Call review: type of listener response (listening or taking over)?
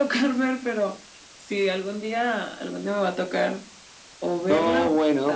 taking over